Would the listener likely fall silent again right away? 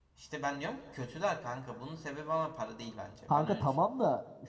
No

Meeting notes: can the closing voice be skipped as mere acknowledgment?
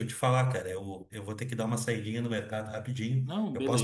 Yes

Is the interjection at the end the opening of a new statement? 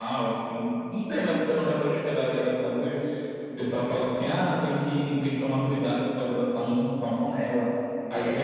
No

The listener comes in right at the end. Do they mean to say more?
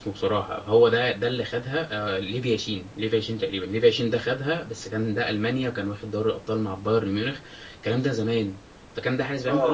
No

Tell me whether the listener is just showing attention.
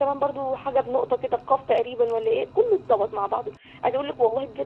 Yes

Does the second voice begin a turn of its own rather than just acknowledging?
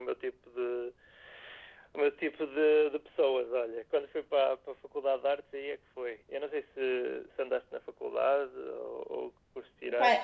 Yes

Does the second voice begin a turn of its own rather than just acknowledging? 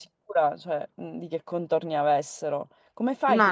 No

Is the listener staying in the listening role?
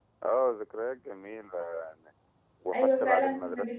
No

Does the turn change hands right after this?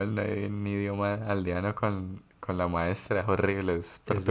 Yes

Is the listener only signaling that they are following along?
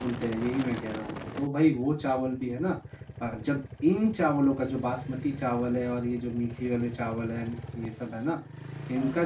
Yes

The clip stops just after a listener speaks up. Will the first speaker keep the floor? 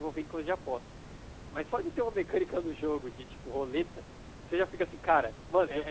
No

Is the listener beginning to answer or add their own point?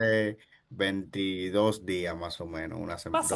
Yes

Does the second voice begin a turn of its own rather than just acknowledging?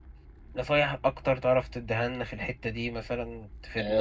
Yes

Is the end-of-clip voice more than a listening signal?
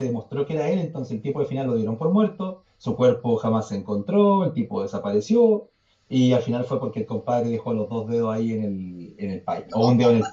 No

